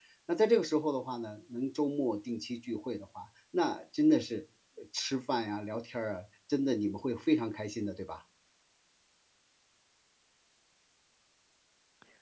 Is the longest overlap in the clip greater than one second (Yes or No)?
No